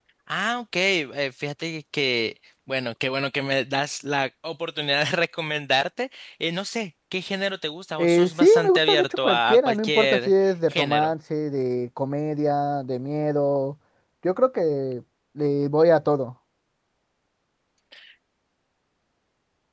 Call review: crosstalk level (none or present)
present